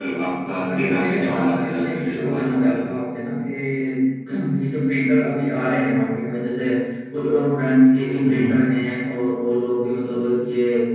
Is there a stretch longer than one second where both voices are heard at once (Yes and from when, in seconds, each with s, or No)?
Yes, from 0.7 s